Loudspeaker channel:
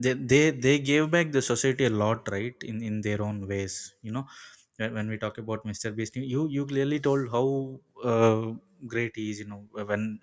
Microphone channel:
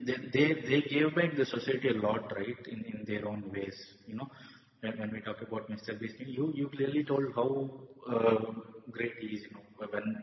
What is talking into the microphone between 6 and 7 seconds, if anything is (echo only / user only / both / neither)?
echo only